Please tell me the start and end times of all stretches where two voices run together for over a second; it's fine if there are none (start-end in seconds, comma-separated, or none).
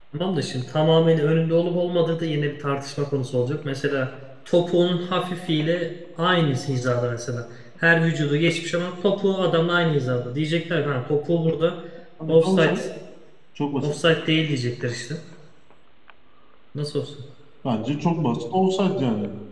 none